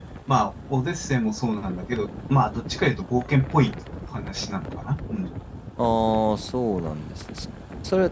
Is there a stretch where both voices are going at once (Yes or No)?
No